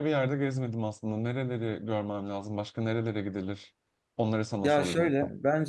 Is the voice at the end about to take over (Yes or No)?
Yes